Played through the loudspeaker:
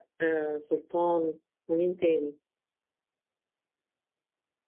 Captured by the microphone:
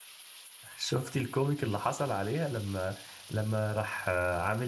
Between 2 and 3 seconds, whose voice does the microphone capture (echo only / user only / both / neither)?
user only